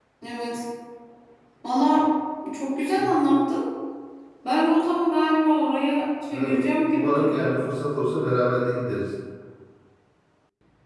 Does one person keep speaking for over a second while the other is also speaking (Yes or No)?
Yes